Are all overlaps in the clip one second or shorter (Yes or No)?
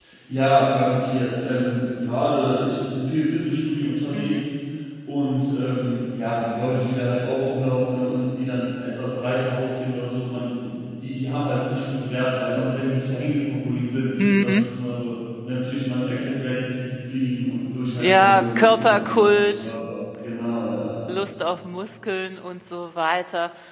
No